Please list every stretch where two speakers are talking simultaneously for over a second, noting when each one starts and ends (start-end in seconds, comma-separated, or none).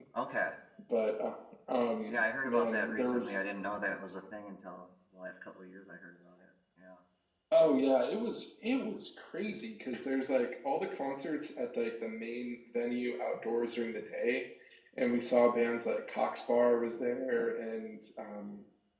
2.1-3.4